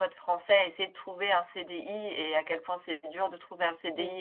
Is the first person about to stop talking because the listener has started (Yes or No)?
No